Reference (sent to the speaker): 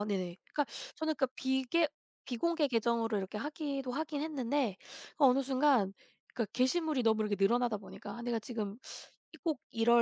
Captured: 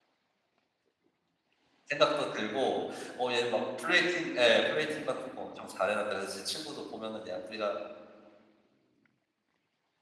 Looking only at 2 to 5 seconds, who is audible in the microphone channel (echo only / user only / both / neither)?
user only